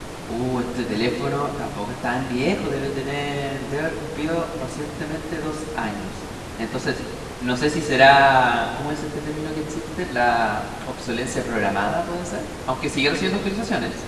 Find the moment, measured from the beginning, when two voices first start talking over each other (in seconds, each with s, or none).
none